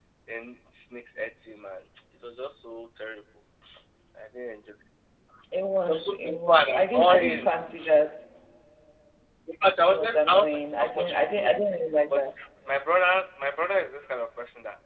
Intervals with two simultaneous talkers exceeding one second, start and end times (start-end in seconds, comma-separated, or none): 5.9-7.5, 9.8-11.6